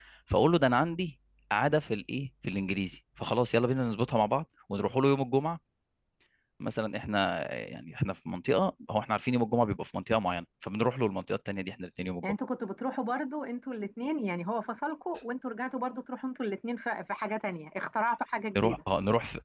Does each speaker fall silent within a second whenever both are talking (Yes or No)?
Yes